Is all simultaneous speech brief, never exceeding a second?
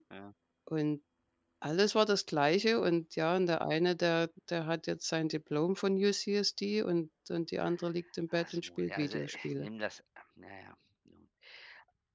No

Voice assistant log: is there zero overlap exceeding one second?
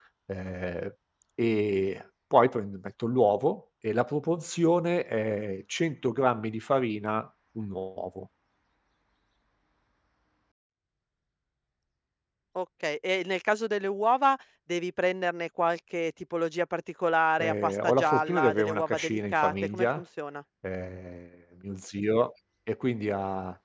No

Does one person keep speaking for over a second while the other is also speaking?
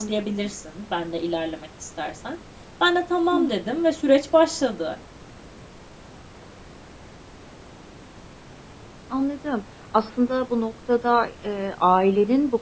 No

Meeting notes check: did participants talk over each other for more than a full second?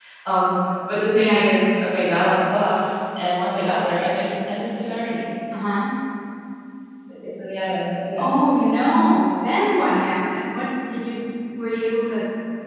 No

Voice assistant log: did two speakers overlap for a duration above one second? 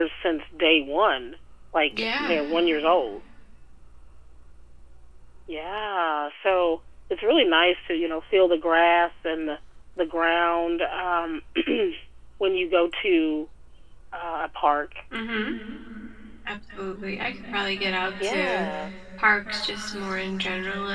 No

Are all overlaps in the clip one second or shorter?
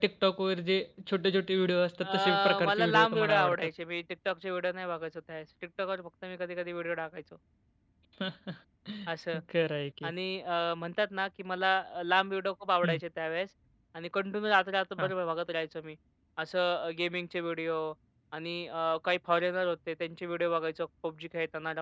No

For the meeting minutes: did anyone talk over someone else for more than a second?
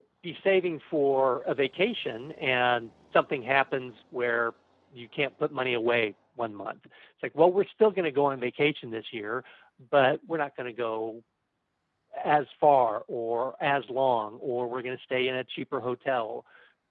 No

